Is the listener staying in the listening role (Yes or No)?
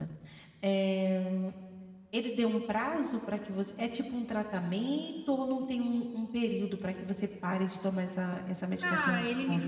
No